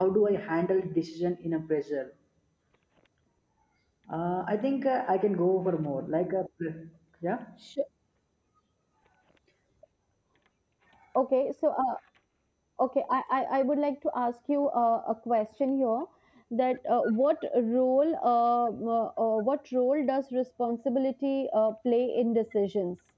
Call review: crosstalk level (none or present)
none